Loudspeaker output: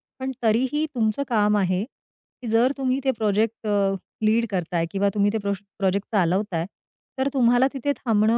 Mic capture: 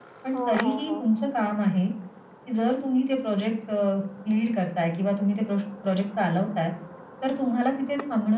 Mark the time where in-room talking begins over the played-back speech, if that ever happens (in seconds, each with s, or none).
0.3 s